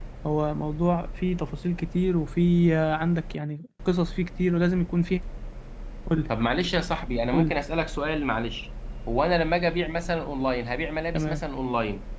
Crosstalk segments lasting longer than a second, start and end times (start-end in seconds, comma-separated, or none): none